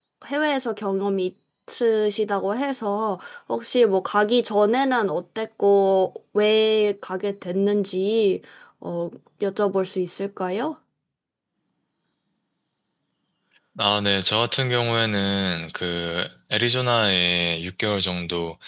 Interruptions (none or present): none